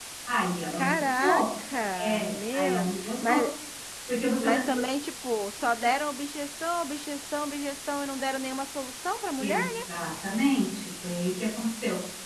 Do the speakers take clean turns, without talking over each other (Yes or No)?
No